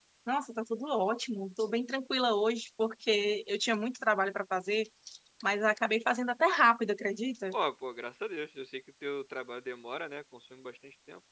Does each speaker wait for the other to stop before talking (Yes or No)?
Yes